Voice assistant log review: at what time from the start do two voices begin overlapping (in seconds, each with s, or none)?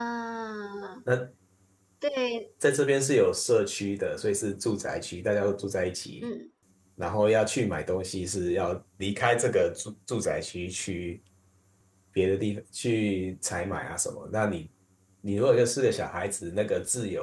none